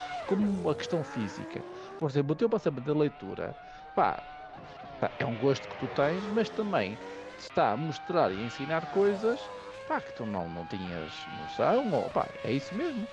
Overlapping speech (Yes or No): No